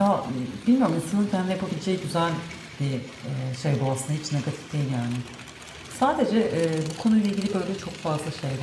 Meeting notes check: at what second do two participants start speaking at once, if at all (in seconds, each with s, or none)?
none